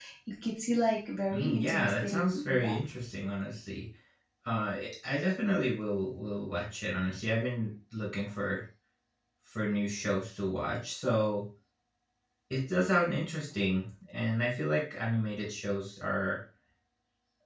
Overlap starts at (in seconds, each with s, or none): 1.3 s